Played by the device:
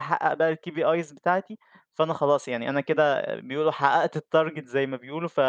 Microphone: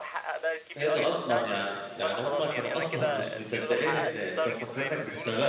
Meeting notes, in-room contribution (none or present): present